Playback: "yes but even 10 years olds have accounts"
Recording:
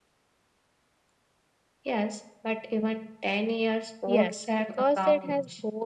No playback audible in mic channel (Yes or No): No